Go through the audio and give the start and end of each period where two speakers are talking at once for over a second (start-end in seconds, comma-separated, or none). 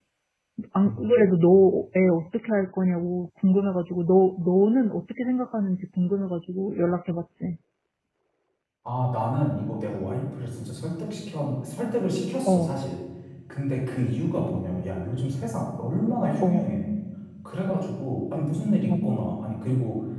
none